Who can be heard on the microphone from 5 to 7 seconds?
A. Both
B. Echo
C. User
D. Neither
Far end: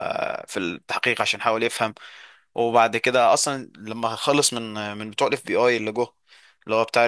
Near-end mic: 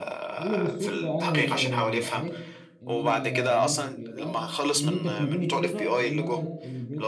A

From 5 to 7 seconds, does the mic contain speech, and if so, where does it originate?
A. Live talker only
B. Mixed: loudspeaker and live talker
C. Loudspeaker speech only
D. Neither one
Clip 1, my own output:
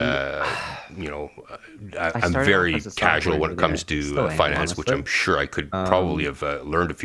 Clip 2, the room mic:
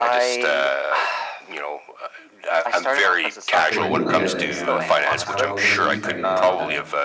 B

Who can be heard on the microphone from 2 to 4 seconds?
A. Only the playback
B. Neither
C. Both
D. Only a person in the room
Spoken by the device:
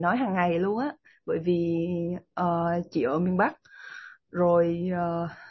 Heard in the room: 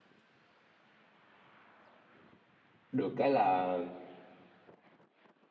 D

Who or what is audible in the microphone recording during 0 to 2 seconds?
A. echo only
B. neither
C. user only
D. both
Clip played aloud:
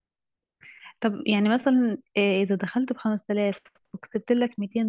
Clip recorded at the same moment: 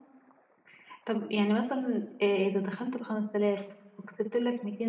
A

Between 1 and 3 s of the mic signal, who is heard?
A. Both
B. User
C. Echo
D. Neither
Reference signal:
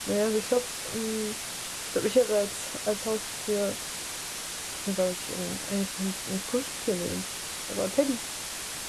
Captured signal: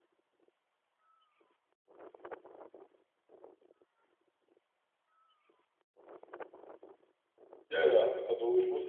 D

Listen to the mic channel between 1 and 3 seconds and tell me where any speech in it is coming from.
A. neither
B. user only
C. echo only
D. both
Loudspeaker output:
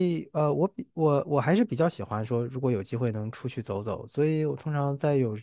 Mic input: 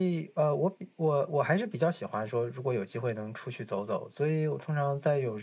C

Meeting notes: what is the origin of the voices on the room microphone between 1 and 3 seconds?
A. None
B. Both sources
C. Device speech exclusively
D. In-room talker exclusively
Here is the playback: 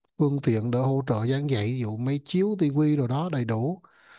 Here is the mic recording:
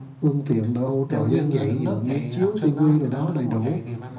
B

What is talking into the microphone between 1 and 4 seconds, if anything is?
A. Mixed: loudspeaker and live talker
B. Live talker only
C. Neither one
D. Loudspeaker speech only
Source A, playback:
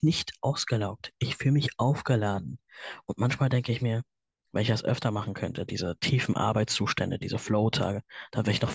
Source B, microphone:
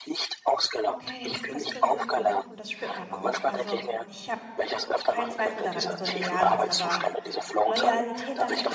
A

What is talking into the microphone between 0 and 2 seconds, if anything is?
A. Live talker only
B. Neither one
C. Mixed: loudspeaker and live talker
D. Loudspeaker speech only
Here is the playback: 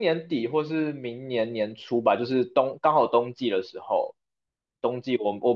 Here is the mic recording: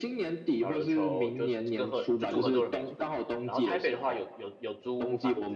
C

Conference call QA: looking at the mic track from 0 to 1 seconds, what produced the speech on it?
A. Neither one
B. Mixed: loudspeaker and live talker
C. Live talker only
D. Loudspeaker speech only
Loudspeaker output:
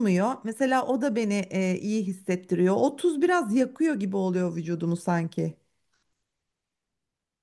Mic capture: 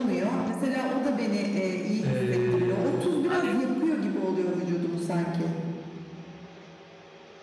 D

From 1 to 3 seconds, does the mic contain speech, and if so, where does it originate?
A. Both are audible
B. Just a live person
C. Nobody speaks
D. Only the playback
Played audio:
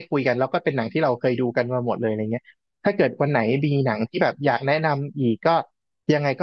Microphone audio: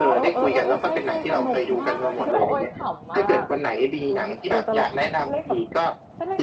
A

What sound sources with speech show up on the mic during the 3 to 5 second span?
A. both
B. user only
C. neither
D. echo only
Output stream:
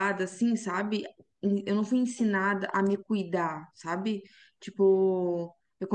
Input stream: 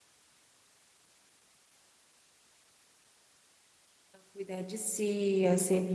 B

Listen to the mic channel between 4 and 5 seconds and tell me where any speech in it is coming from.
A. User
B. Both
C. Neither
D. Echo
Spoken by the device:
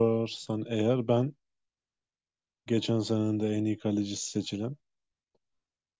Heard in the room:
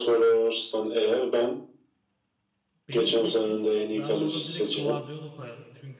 B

